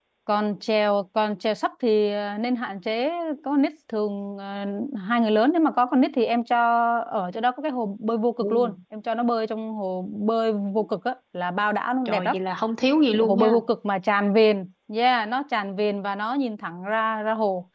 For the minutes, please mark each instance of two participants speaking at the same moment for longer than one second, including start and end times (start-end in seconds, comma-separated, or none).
none